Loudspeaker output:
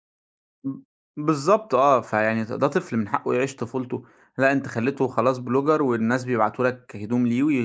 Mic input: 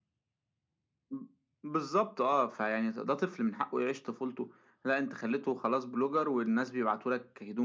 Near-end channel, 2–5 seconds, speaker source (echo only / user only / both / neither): echo only